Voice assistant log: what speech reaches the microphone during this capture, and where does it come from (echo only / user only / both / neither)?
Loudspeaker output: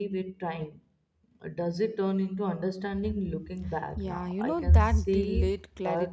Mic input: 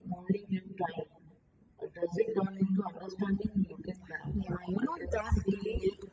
echo only